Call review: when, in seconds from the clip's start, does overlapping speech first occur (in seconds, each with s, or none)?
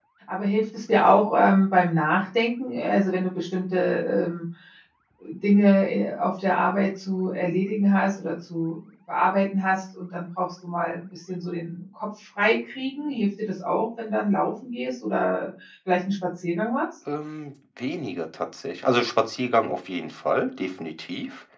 none